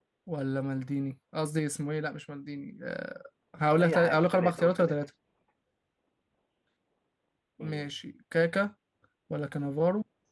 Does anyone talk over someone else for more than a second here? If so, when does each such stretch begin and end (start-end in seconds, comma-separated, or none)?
3.8-5.0